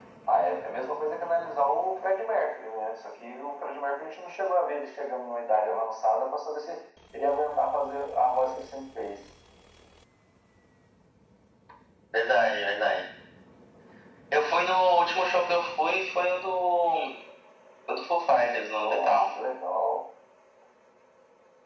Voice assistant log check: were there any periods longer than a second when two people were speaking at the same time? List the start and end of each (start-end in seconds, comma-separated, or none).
none